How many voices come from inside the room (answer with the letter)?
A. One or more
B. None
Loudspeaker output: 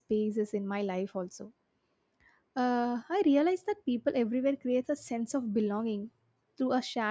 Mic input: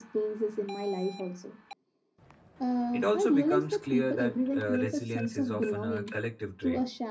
A